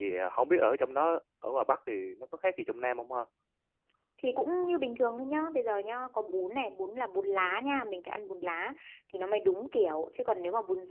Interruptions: none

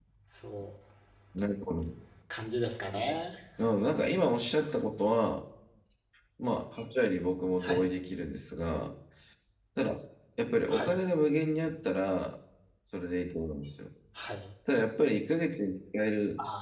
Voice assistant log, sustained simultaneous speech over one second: none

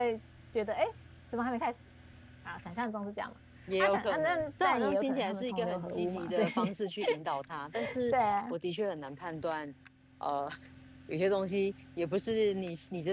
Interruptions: present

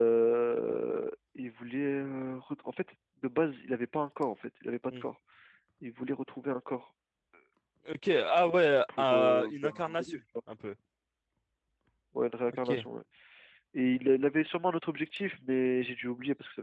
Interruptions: present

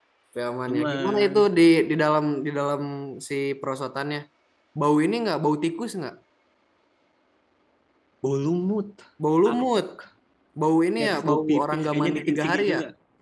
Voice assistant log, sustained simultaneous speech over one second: present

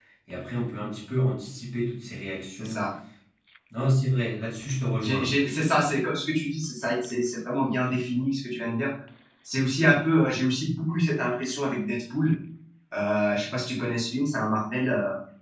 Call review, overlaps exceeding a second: none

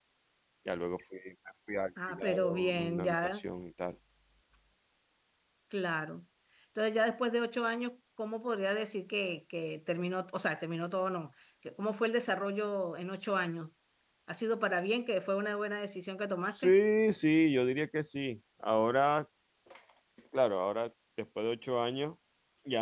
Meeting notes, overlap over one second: present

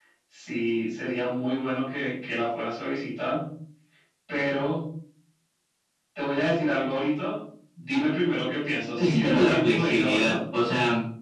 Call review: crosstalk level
present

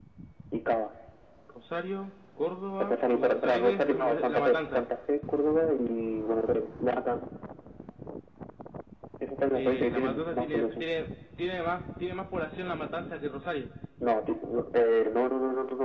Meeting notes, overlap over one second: present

